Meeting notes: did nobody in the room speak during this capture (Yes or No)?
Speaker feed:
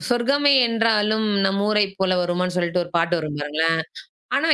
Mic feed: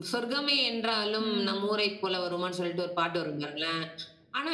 No